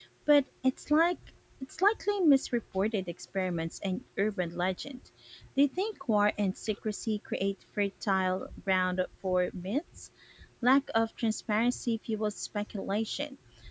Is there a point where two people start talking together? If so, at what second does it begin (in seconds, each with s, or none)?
none